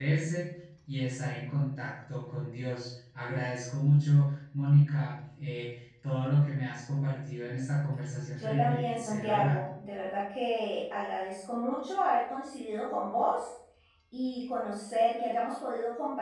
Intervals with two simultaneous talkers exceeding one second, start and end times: 8.4-9.6

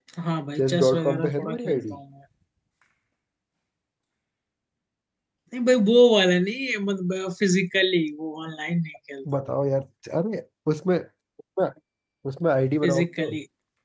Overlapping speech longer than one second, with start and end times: 0.6-2.0

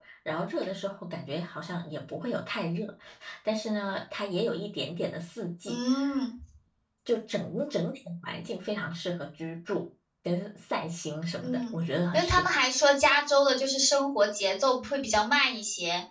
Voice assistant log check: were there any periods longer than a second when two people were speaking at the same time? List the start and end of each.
none

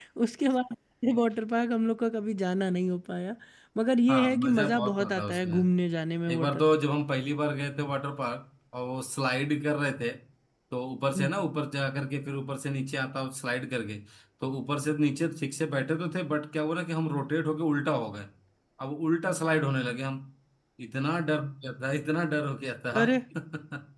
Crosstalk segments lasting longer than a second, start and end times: 4.1-5.6

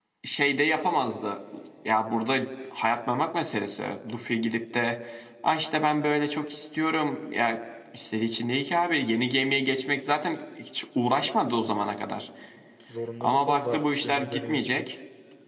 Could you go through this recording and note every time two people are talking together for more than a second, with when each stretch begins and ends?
13.2-14.9

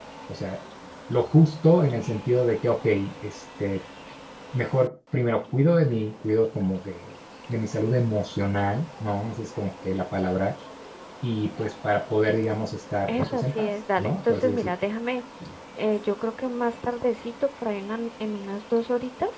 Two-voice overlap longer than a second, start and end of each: 13.1-14.7

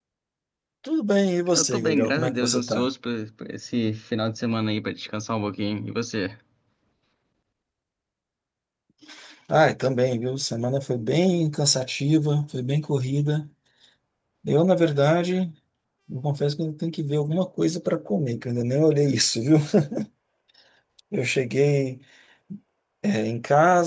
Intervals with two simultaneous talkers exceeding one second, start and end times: 1.6-2.9

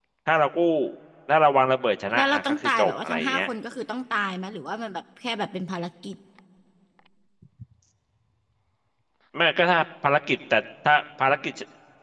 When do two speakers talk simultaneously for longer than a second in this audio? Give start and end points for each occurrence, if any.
2.1-3.4

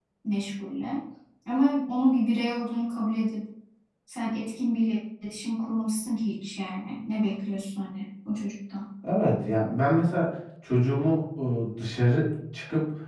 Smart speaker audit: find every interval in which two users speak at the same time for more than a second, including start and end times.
none

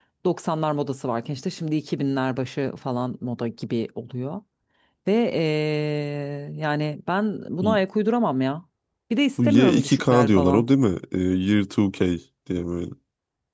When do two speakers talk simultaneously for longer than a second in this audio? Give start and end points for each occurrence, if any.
9.4-10.7

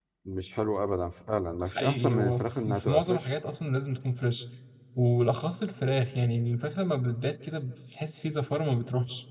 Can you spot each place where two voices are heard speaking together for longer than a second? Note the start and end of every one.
1.7-3.2

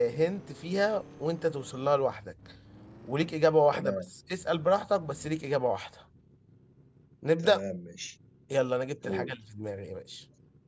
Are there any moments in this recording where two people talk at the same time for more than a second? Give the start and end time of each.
none

